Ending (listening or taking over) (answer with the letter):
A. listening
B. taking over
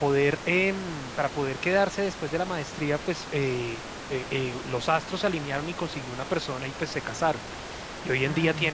A